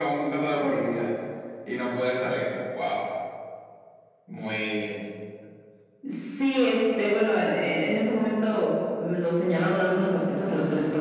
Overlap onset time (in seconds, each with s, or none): none